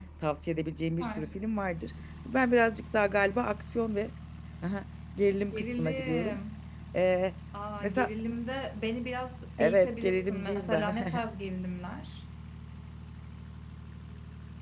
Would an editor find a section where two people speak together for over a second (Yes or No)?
Yes